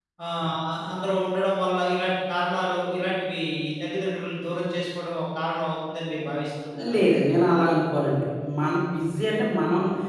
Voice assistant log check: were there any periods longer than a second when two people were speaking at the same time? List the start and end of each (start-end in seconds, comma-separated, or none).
none